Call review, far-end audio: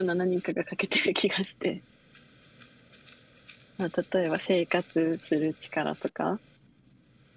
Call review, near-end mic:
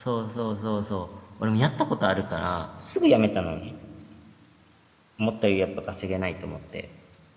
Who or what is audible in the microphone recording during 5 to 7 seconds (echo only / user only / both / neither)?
user only